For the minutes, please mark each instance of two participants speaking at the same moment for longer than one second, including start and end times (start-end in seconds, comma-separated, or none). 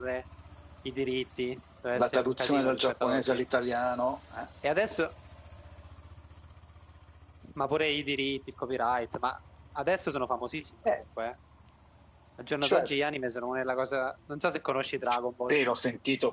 1.9-3.4